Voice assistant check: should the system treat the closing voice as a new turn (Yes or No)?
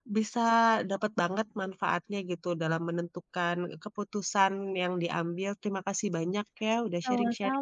Yes